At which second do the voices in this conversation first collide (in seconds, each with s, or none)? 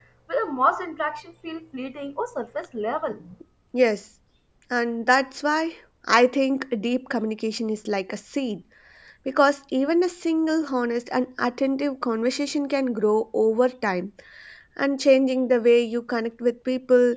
none